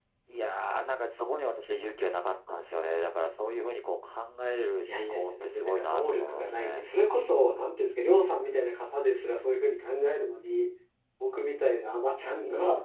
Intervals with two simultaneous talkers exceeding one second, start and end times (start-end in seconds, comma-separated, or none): 4.8-6.9